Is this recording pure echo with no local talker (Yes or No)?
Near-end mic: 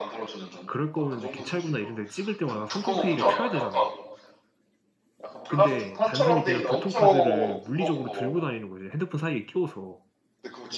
No